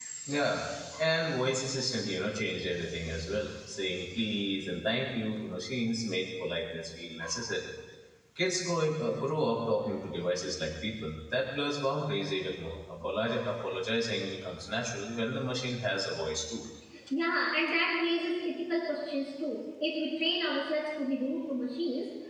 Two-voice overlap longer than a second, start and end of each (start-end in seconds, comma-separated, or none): none